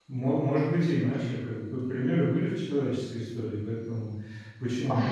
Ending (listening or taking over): listening